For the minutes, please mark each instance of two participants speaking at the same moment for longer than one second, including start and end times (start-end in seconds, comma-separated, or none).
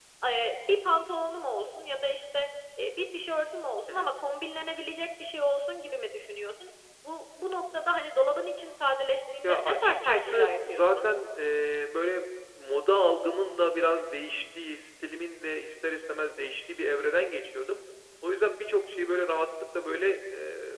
9.4-11.1